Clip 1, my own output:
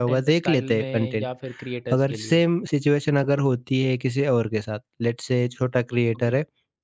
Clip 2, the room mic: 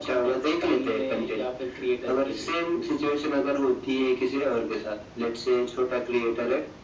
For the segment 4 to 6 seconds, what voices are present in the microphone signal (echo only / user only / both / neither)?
echo only